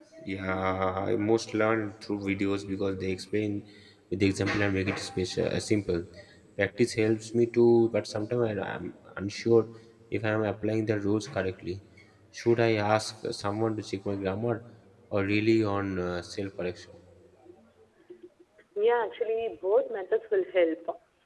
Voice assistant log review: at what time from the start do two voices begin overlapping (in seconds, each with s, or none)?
none